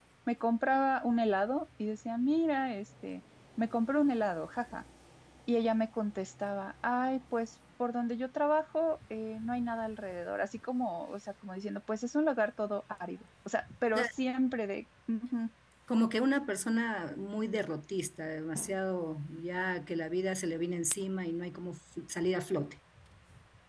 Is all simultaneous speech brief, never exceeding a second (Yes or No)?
Yes